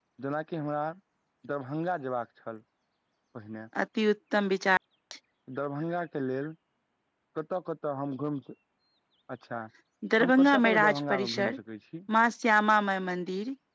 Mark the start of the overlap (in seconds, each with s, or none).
10.2 s